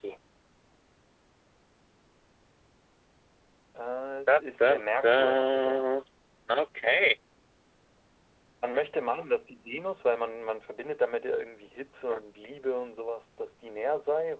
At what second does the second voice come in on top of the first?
4.3 s

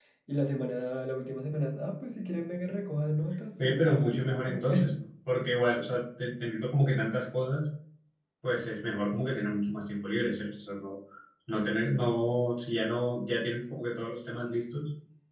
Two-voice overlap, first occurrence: 3.6 s

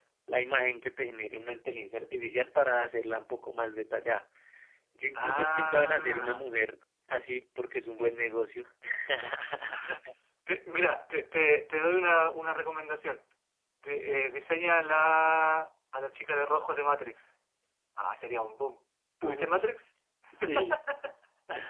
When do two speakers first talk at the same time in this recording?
5.2 s

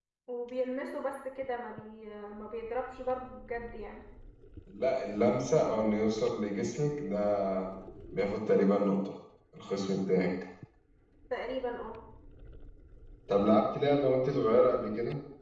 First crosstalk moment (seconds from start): none

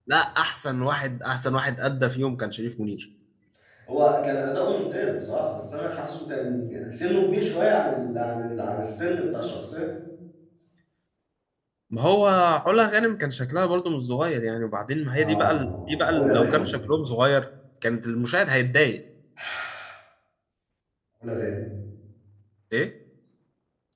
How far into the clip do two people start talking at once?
15.2 s

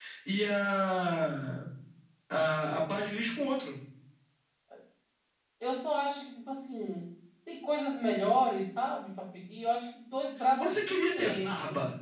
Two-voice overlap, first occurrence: 10.4 s

